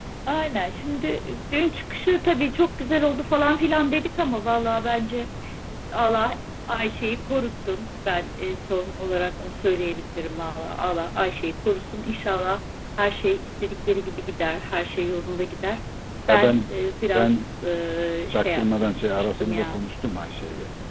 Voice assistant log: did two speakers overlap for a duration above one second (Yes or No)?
Yes